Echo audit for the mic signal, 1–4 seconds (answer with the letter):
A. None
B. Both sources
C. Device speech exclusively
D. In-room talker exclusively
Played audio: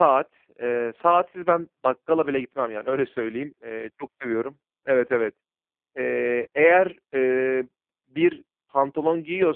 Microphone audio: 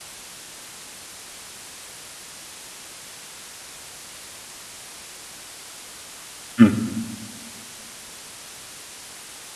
A